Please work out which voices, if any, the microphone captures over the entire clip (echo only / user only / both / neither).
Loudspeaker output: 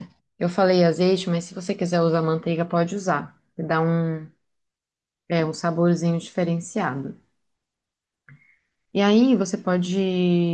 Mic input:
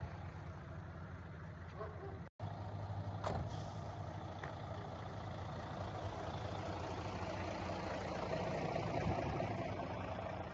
neither